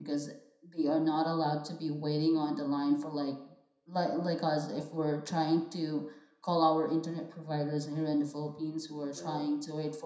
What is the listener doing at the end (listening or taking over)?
listening